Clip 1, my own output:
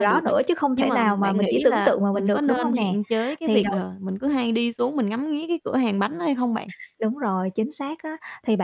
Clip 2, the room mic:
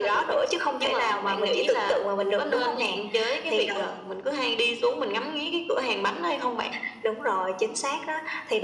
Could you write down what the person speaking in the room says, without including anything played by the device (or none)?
none